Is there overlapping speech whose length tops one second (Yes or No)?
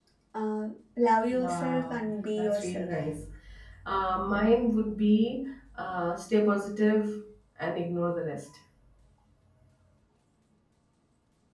Yes